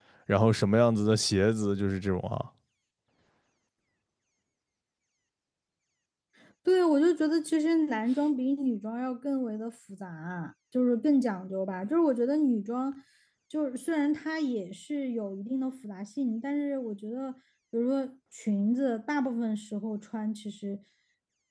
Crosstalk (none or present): none